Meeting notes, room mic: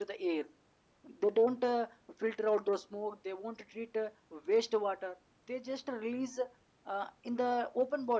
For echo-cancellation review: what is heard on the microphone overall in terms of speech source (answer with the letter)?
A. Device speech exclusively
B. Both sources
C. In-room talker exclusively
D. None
C